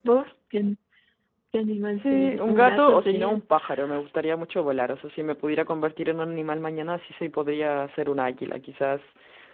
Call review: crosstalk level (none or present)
present